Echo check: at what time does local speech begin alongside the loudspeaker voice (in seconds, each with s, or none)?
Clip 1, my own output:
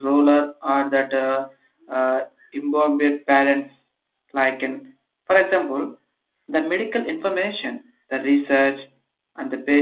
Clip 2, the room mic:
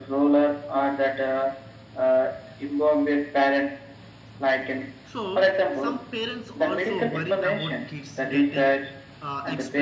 5.1 s